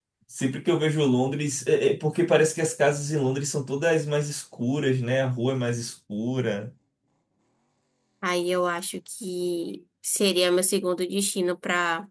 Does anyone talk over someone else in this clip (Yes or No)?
No